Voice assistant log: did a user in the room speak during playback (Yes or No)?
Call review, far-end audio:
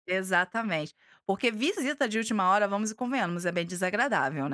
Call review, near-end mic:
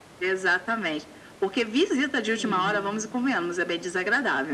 Yes